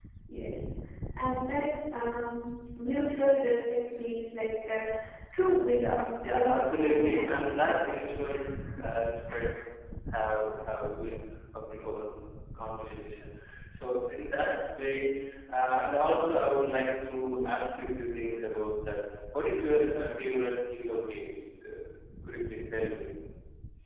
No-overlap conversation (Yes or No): No